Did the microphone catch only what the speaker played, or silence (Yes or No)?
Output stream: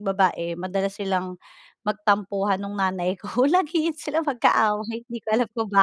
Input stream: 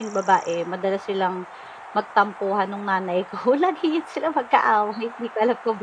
Yes